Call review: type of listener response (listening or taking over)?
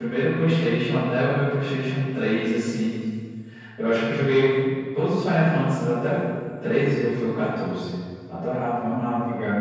taking over